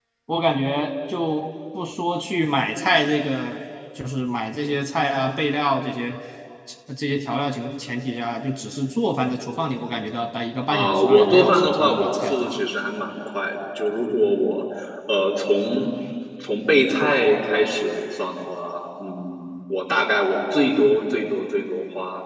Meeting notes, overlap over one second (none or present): present